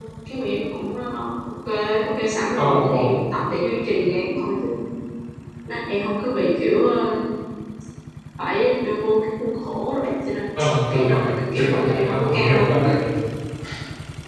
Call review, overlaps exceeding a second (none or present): present